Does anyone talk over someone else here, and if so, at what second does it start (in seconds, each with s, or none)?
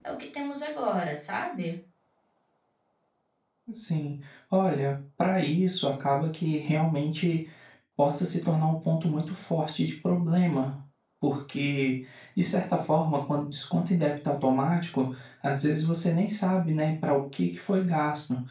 none